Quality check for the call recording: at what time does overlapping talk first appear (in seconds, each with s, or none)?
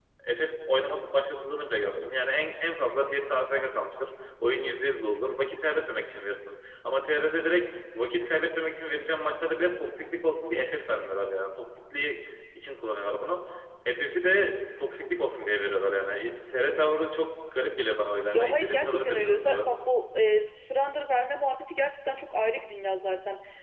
18.3 s